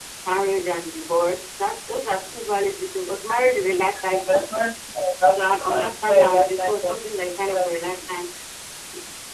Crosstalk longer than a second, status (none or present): present